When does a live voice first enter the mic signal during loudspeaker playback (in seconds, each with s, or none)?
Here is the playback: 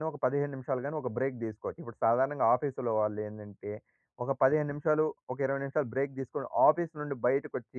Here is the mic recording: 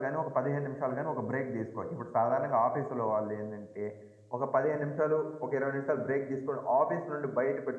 none